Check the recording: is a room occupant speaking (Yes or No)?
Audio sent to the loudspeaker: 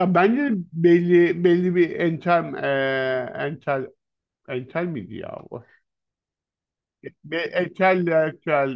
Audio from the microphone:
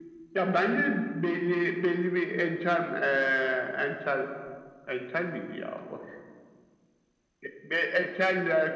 No